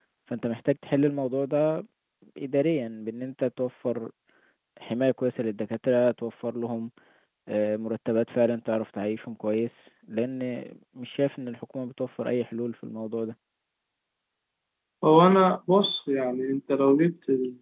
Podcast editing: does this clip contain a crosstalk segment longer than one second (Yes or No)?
No